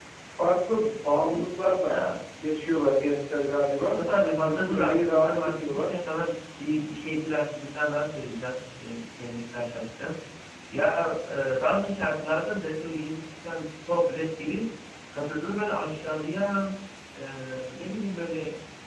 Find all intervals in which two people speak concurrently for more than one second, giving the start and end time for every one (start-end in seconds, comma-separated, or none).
4.4-5.9